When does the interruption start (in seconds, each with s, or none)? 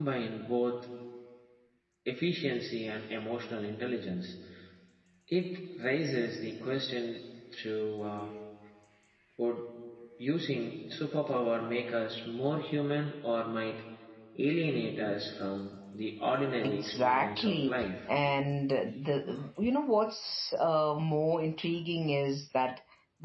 16.6 s